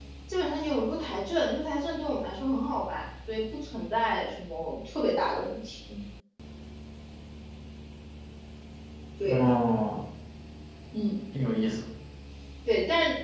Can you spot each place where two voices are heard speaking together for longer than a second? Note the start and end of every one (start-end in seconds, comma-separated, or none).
none